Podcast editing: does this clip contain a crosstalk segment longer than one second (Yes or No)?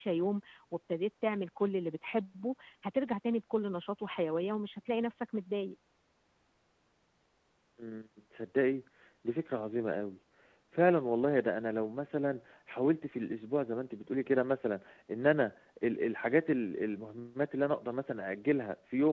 No